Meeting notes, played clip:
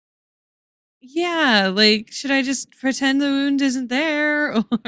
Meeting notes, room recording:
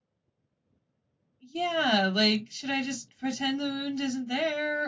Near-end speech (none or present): none